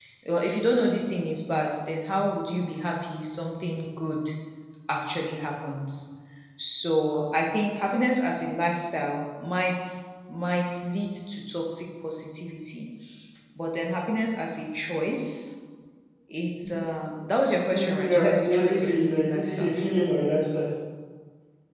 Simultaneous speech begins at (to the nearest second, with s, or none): 18 s